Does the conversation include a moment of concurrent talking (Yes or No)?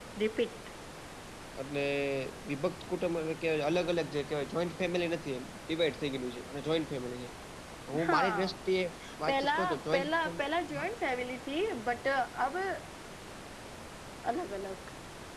Yes